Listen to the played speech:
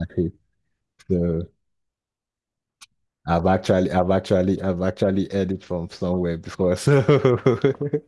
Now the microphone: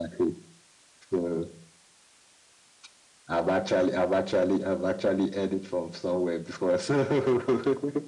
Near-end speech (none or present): none